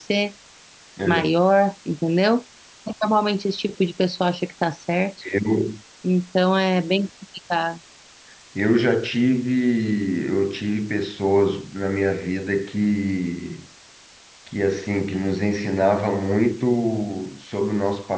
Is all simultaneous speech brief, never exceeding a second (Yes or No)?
Yes